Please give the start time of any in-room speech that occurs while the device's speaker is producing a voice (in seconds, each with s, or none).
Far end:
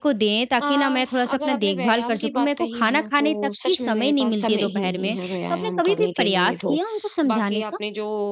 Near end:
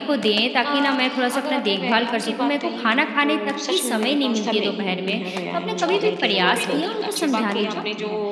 5.7 s